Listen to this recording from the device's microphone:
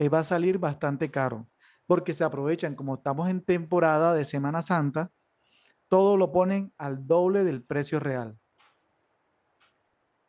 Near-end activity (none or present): present